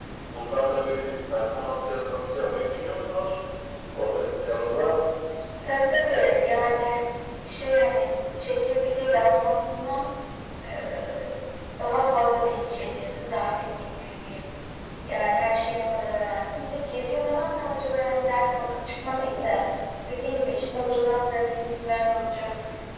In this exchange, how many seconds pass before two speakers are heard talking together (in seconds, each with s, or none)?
none